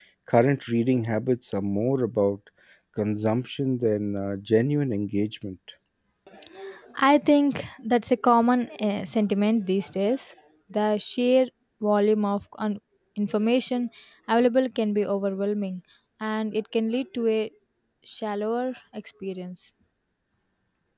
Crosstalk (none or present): none